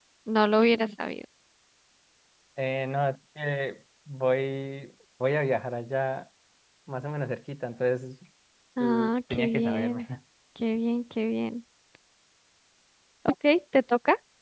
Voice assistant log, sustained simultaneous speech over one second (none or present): present